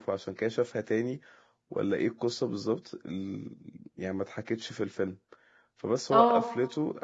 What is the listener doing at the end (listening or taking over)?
listening